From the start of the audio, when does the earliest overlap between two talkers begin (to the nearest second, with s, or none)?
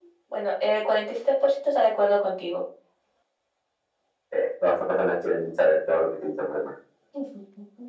none